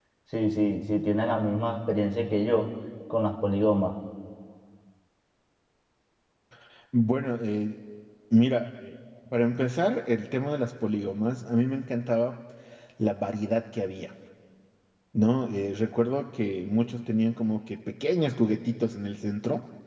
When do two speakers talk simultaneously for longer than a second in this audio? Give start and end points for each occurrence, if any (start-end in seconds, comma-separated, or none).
none